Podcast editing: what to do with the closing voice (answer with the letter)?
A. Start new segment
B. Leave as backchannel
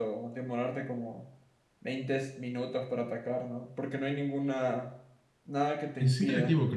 A